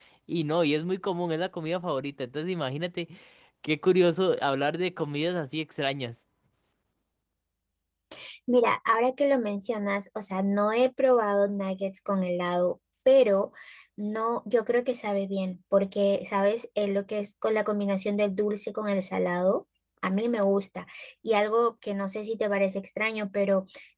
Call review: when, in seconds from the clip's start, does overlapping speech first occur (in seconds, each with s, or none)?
none